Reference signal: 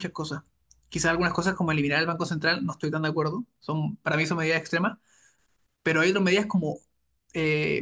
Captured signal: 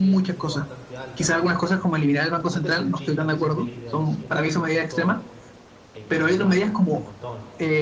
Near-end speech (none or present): present